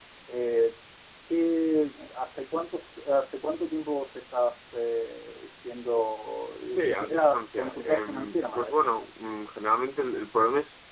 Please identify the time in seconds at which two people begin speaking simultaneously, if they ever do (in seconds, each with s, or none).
6.8 s